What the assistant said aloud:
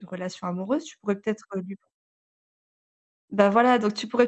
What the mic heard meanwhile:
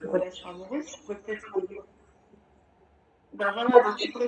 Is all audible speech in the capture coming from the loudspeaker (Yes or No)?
Yes